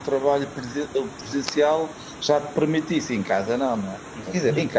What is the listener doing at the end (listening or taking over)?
listening